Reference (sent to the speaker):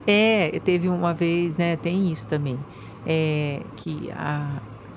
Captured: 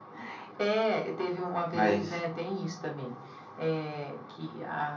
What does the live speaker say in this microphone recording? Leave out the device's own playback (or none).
Mas,